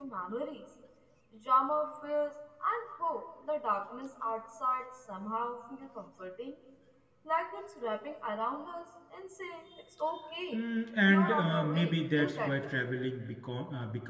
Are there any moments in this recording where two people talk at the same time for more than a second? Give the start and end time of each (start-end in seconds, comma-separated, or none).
11.1-12.9